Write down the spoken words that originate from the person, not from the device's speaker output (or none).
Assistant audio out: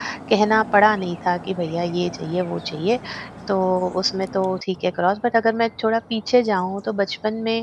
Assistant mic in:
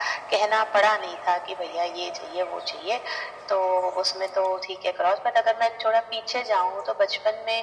none